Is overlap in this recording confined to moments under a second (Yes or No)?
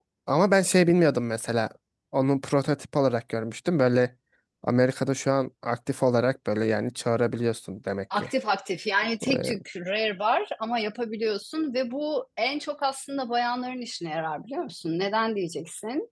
Yes